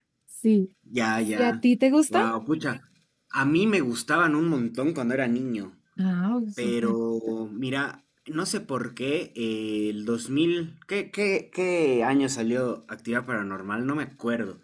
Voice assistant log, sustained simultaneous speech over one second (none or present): none